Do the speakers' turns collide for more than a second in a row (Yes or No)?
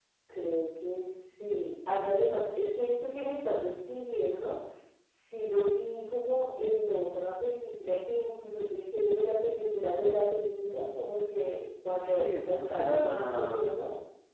Yes